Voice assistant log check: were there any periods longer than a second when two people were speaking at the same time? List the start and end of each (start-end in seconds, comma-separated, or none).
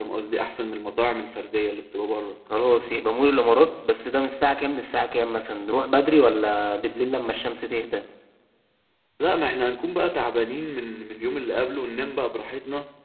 none